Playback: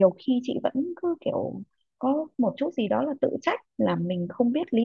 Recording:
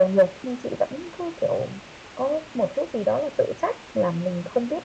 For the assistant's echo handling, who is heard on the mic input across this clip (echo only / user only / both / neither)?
echo only